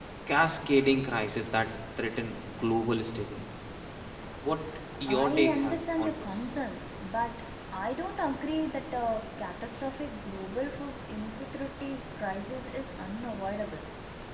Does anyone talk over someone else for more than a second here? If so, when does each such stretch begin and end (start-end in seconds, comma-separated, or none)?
5.1-6.4